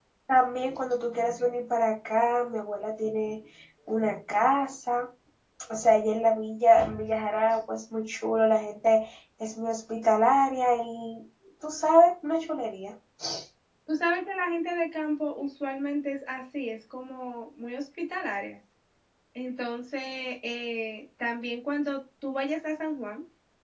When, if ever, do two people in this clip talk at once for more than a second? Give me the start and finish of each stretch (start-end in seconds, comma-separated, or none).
none